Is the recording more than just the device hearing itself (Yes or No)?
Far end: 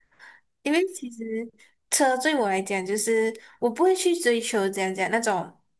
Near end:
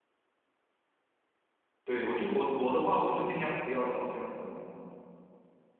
Yes